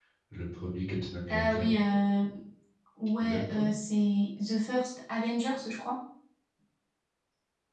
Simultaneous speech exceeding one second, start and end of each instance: none

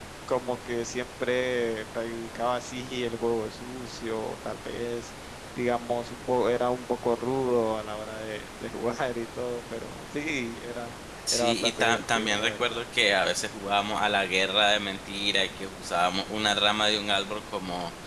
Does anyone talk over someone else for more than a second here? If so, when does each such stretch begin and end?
11.3-12.8

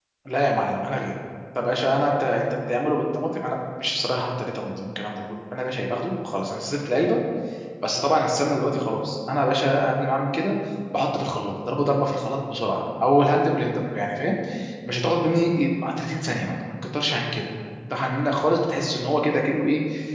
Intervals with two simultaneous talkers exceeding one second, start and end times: none

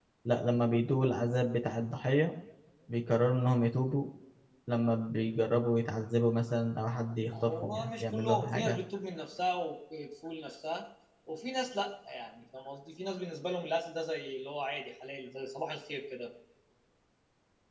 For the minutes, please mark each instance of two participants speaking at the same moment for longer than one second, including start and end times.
7.3-8.8

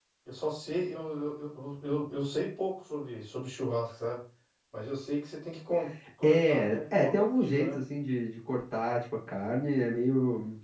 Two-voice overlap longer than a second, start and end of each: 6.2-7.8

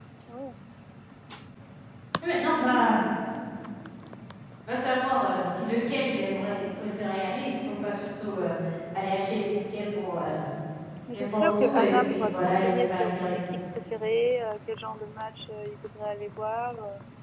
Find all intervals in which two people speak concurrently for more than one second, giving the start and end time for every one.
11.1-13.4

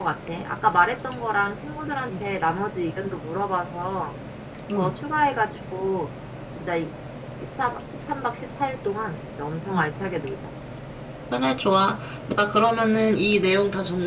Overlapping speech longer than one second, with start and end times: none

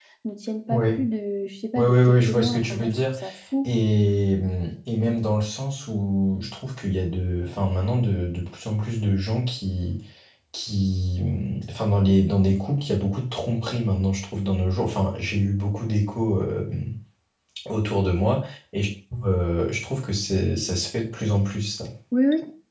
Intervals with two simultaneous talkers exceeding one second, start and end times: 1.8-3.0

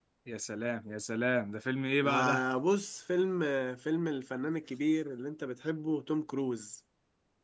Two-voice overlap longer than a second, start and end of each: none

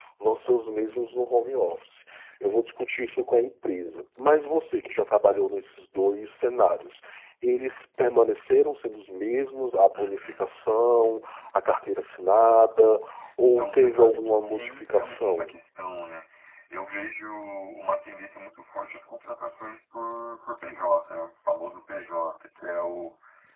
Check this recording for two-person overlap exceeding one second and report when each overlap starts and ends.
13.4-15.5

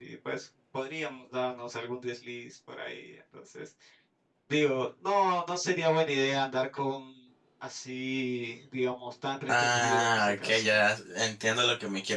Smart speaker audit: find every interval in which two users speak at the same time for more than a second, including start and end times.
9.5-10.8

